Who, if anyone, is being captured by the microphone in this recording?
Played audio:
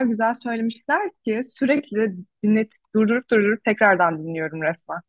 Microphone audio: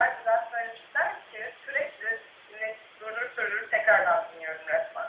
echo only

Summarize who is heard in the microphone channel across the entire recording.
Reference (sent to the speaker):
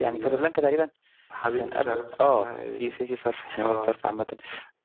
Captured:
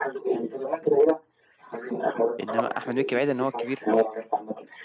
both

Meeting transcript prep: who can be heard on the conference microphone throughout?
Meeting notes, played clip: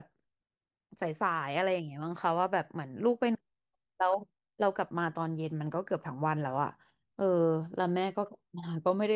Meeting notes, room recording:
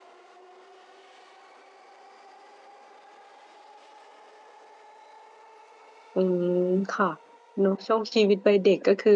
user only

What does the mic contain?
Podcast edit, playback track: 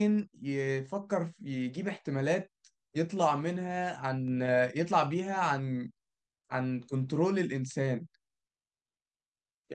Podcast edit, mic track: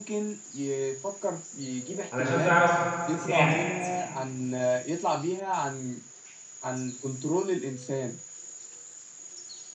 both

